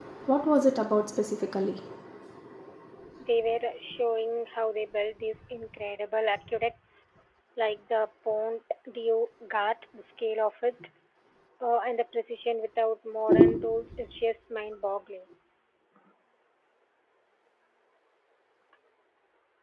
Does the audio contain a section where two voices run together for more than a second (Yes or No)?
No